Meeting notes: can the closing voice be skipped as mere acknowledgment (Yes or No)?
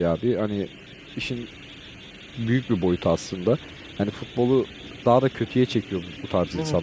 Yes